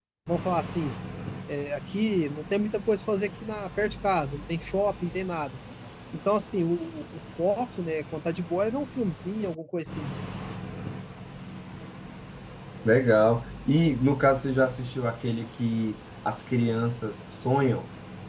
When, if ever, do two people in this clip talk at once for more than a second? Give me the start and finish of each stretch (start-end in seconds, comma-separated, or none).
none